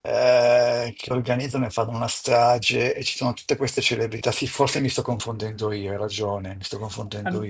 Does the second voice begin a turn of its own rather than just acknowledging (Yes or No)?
Yes